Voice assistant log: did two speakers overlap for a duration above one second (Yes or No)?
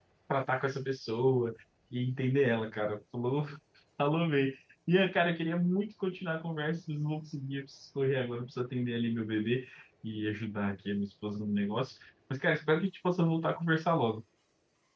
No